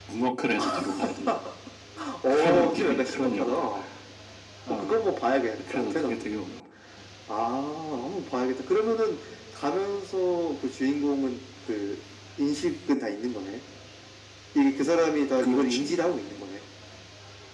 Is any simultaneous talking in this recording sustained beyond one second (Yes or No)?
Yes